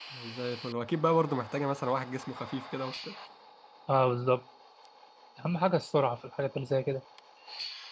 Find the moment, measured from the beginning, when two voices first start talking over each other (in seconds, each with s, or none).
none